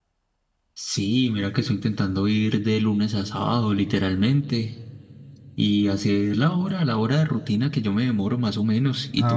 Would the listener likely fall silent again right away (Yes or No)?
No